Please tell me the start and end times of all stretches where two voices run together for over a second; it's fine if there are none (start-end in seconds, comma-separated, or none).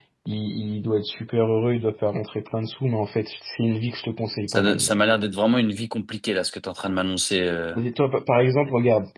none